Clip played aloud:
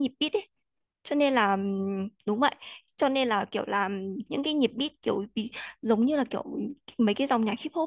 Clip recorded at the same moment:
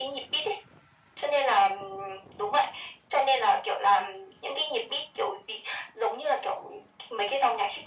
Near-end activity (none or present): none